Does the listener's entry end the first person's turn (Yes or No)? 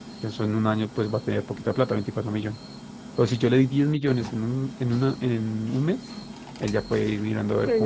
Yes